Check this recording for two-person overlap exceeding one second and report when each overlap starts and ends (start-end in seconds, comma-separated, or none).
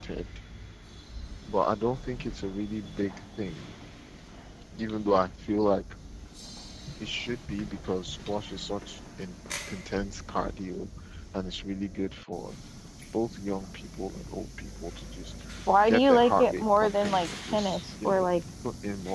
15.9-18.3